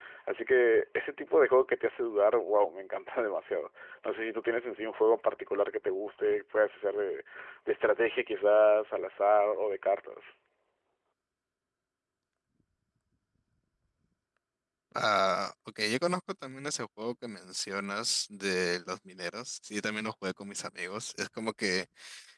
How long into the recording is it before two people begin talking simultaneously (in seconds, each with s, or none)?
none